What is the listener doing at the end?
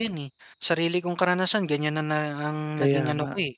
listening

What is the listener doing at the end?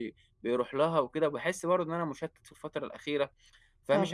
listening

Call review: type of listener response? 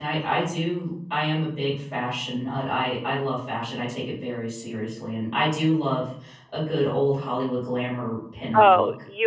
taking over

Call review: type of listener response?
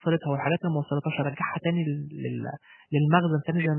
taking over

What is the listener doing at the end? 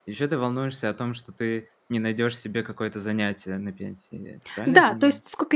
taking over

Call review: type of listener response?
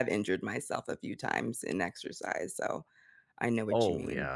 taking over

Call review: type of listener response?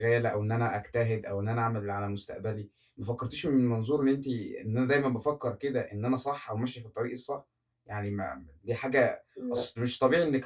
listening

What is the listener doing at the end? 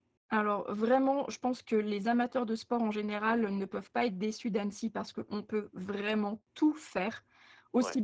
listening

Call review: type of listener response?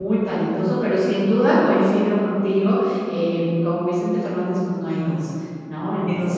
listening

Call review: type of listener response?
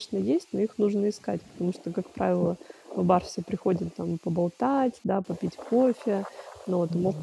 listening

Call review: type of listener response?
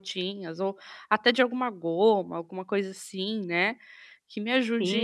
taking over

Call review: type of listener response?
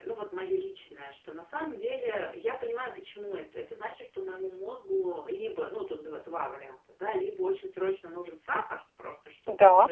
listening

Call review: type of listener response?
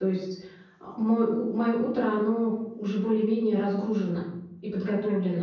taking over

